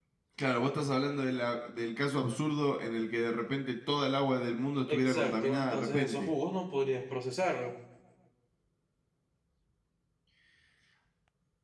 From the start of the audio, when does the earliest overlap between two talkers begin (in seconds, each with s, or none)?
4.9 s